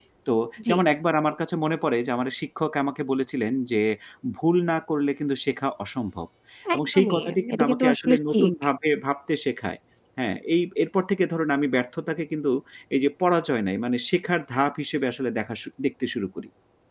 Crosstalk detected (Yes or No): Yes